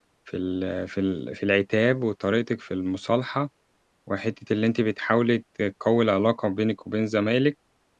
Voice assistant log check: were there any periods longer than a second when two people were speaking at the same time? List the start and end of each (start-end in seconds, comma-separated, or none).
none